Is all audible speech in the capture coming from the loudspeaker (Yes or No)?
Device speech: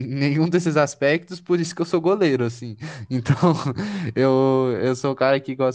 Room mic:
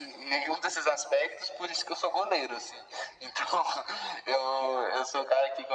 Yes